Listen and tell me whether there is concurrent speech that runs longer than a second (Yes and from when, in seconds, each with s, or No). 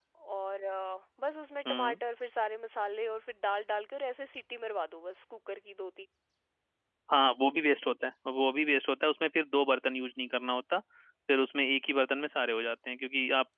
No